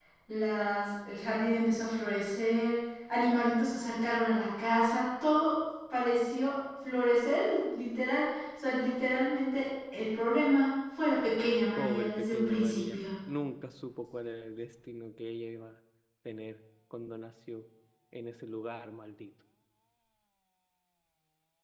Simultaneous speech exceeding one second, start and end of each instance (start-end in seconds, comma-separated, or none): 11.8-13.0